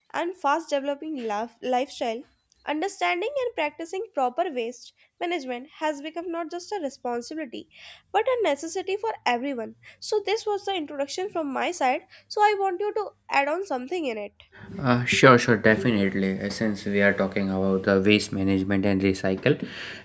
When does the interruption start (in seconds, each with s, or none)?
none